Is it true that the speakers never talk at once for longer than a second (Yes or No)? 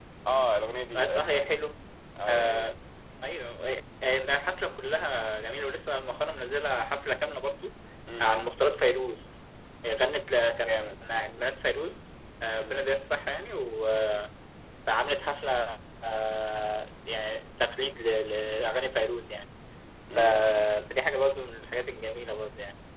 Yes